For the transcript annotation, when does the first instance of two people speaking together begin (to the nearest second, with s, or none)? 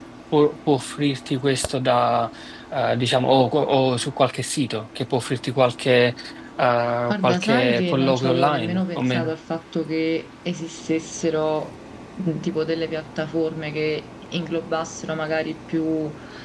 7 s